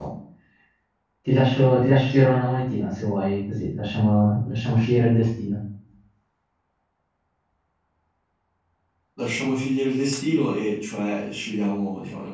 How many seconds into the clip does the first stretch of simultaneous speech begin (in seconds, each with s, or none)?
none